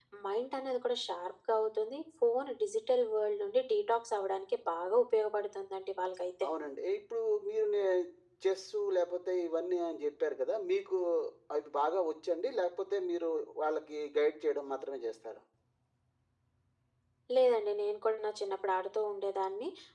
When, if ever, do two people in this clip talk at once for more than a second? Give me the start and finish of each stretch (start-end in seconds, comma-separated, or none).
none